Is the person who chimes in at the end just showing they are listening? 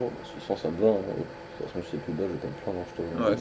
No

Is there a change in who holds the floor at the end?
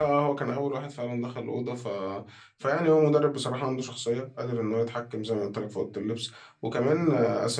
No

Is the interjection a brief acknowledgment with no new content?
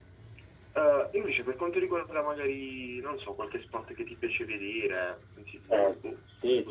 No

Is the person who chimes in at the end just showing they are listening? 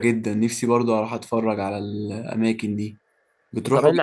No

